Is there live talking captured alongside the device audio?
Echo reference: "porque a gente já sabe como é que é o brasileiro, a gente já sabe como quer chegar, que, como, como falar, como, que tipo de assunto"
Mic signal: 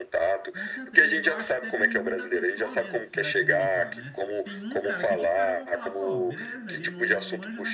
Yes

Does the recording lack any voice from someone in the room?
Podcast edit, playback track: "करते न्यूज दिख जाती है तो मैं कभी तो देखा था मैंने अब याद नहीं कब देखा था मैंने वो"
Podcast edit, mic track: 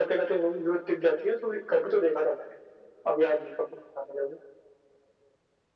Yes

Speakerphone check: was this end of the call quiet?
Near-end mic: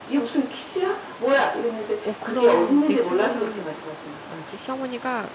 No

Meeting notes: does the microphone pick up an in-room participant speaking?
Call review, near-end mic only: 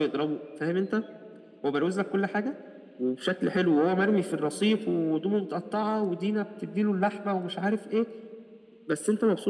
No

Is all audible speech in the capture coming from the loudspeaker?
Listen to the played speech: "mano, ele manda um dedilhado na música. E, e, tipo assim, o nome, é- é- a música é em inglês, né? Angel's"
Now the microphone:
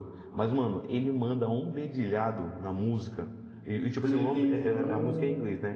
No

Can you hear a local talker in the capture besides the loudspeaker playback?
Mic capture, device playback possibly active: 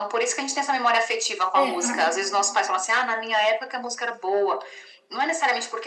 Yes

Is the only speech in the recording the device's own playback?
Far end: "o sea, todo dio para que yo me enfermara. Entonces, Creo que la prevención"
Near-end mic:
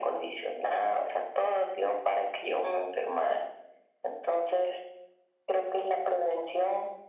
Yes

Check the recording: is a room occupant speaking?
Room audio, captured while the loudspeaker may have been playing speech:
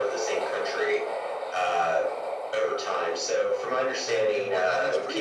Yes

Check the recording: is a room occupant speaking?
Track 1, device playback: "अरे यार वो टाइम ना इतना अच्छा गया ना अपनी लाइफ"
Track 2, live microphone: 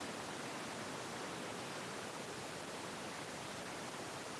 No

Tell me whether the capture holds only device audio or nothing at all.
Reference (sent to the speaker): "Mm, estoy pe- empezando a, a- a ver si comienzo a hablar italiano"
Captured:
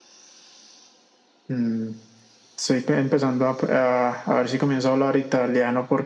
Yes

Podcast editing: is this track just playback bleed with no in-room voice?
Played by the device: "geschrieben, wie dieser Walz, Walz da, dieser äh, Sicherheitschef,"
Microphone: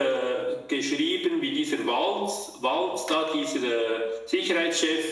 Yes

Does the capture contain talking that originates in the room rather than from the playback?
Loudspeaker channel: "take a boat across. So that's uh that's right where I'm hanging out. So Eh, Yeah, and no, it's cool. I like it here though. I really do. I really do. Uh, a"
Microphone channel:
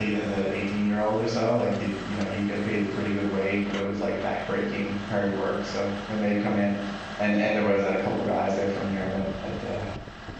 Yes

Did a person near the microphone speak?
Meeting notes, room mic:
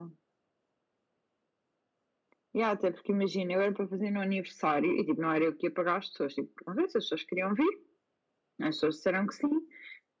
No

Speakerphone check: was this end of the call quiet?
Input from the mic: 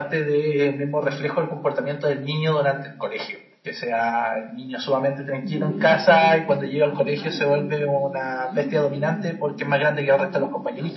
No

